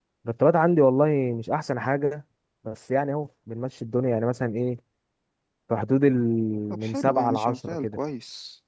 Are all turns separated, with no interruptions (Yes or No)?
No